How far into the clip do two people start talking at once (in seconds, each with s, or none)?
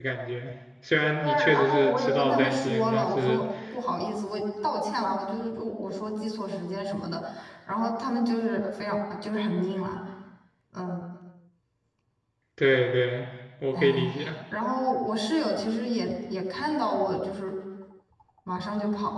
1.2 s